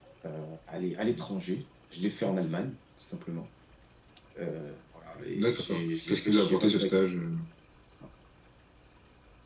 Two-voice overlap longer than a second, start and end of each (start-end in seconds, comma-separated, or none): 5.3-7.0